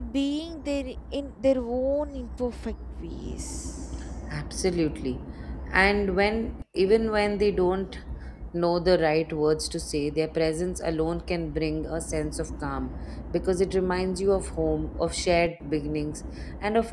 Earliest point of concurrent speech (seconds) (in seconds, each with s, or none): none